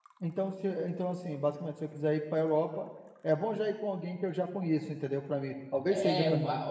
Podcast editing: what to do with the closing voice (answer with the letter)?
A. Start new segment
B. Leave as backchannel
A